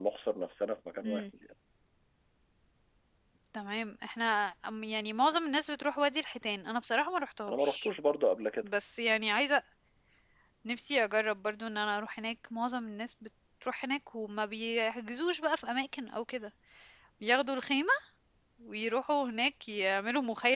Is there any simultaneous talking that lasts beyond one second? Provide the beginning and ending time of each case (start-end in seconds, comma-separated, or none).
none